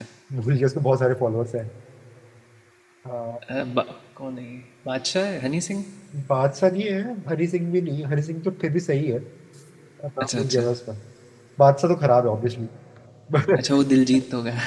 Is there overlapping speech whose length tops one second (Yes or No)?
No